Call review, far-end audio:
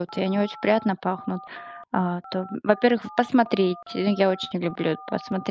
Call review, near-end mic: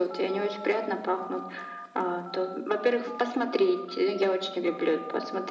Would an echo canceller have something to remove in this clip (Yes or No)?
Yes